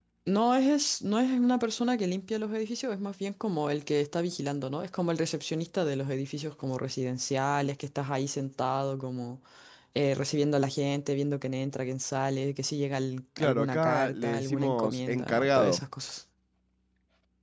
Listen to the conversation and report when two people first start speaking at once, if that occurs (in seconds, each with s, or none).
13.4 s